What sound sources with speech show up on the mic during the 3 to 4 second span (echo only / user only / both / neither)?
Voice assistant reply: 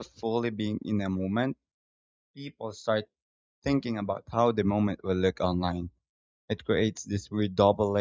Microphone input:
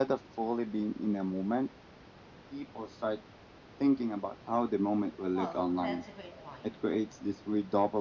echo only